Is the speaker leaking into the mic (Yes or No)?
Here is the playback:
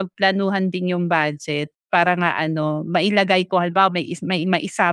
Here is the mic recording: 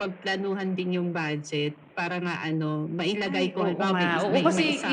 Yes